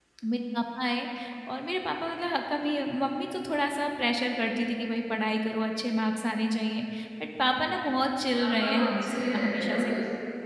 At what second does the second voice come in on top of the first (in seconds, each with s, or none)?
8.3 s